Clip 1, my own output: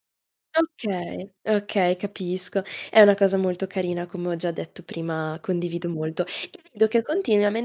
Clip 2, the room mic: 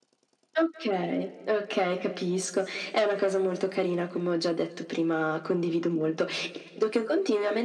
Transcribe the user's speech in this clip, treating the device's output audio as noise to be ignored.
none

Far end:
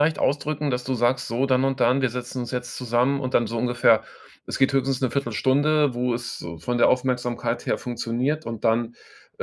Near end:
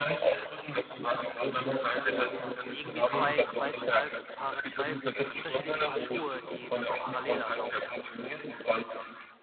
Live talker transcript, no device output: Also, das sind irgendwie 2 2 total ge paare 2 unterschiedliche Paar Schuhe, die die da parallel ablaufen.

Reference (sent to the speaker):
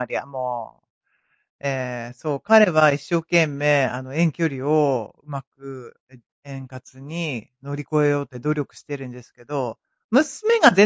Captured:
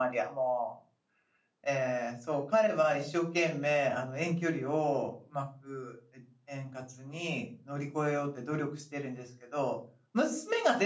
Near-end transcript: none

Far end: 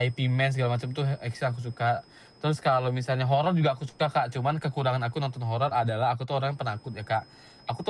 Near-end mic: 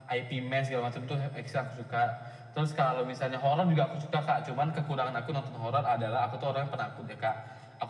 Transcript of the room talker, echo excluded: none

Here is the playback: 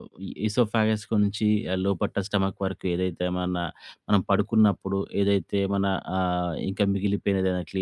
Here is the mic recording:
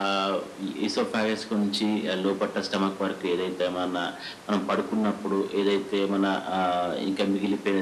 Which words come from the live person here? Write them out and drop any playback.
none

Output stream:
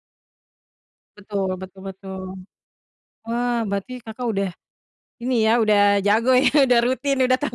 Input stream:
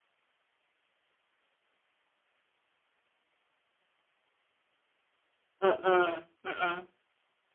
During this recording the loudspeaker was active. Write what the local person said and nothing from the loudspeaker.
Mhm, mhm.

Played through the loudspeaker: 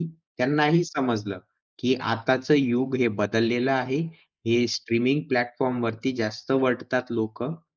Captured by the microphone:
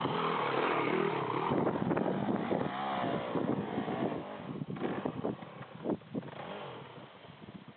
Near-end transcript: none

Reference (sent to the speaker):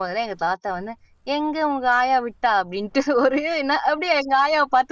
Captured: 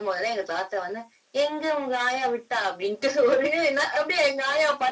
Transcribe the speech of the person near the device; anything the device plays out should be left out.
none

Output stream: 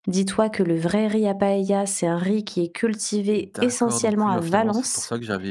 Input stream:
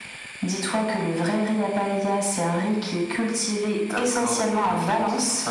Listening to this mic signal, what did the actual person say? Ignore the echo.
none

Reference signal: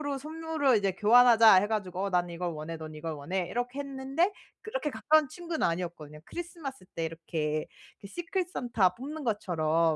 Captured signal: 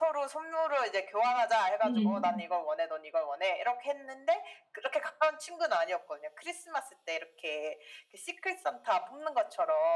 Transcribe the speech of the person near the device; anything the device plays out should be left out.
음.

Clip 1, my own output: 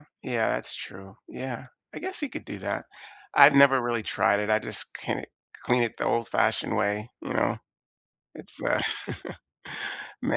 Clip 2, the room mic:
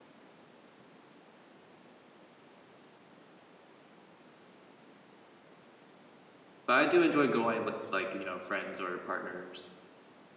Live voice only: but I do enjoy going with like, you know, friends or partners

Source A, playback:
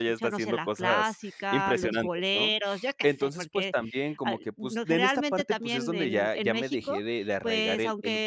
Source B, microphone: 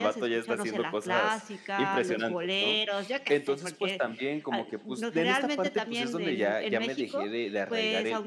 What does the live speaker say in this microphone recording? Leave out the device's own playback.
none

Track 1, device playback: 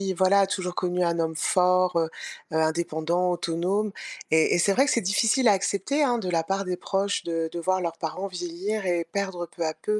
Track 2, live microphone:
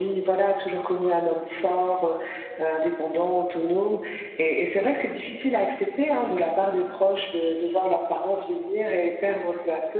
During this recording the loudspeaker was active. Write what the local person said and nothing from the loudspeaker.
none

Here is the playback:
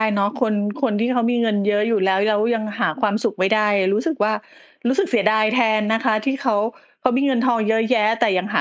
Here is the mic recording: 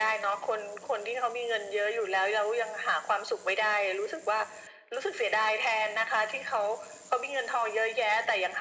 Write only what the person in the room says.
none

